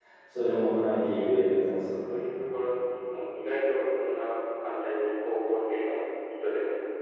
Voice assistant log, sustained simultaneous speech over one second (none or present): none